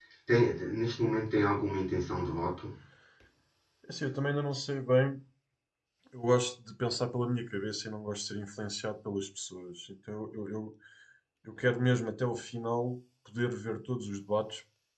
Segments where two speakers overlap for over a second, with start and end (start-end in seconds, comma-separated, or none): none